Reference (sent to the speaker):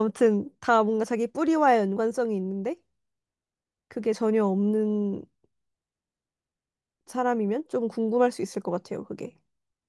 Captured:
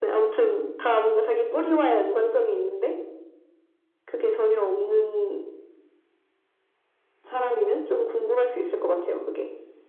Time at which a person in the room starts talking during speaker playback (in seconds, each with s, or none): none